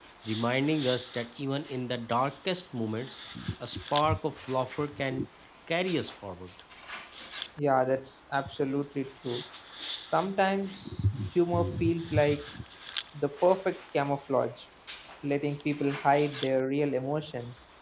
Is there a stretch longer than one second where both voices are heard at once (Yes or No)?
No